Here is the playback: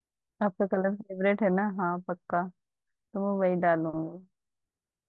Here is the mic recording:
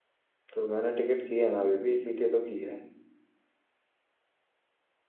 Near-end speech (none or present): present